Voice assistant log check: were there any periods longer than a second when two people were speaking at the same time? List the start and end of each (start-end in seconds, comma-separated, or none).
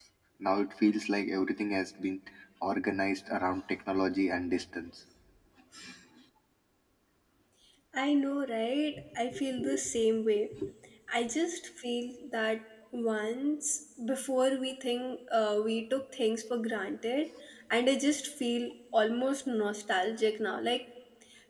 none